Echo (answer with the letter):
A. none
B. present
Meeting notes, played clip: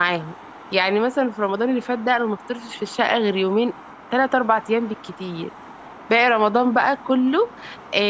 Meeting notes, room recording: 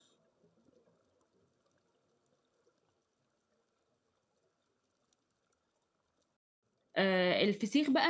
A